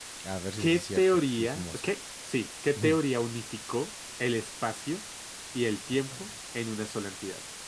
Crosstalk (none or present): present